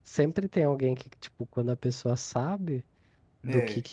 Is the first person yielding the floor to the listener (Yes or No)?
No